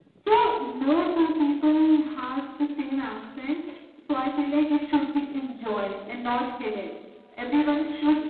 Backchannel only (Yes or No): Yes